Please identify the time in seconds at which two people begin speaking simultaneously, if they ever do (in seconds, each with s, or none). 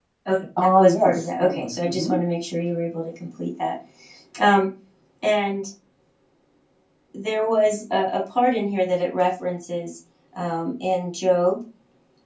0.8 s